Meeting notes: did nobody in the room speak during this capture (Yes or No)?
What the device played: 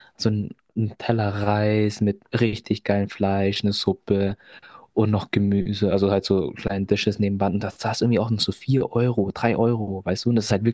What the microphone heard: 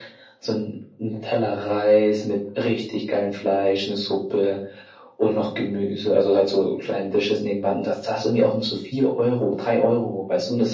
Yes